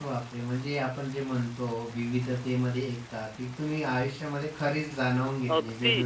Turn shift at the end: Yes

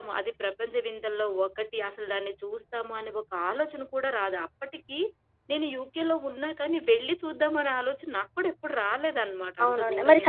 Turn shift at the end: Yes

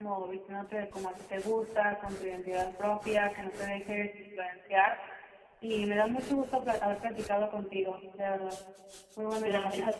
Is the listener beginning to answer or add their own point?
Yes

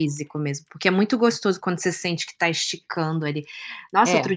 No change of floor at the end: Yes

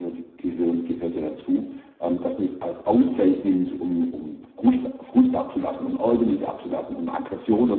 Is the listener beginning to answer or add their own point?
No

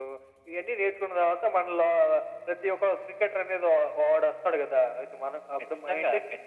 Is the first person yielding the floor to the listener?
Yes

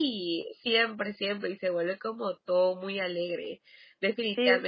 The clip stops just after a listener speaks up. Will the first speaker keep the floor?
No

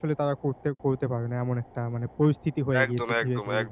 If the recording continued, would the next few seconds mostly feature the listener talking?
Yes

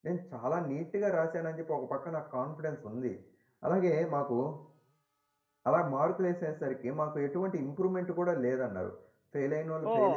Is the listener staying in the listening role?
No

